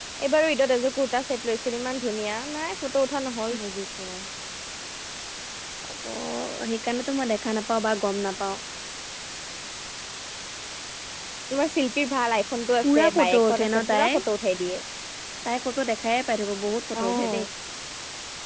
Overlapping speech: Yes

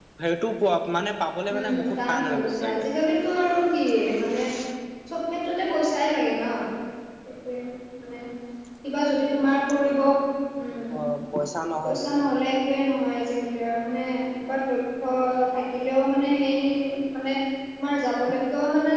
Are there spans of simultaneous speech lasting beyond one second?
Yes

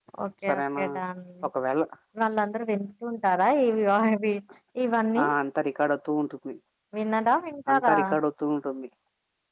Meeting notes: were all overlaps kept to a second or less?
Yes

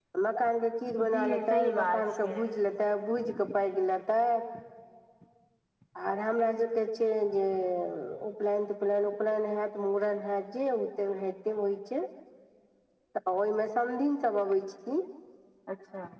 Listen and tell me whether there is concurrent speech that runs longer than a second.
Yes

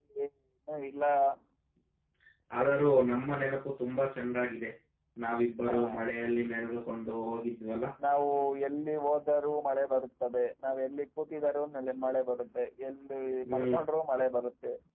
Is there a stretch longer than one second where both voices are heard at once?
No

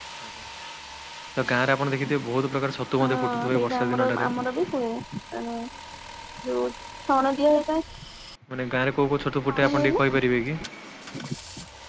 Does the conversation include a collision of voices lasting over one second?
Yes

